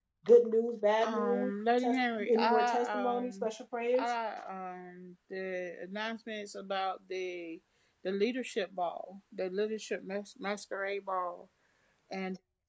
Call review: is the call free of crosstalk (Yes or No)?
No